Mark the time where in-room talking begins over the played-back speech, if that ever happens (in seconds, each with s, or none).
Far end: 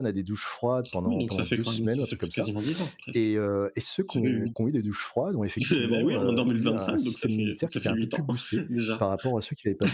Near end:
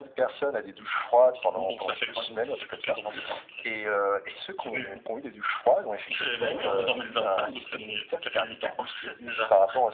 none